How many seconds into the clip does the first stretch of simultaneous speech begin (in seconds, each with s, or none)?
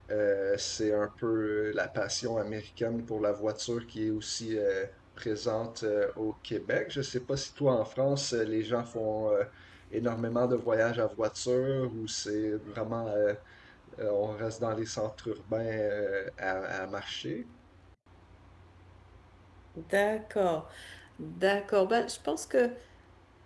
none